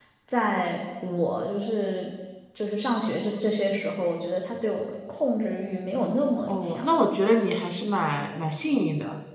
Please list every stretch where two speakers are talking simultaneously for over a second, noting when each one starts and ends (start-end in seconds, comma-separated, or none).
none